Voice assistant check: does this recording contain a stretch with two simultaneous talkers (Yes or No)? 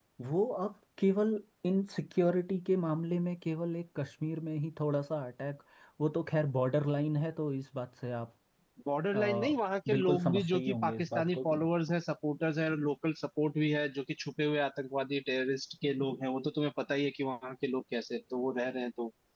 Yes